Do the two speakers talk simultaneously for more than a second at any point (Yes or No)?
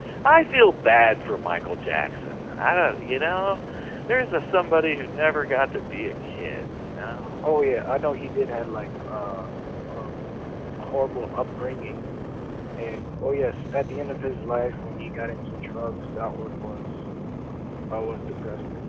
No